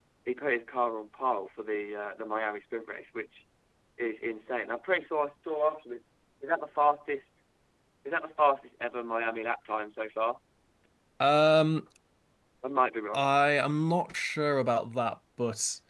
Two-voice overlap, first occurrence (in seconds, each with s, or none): none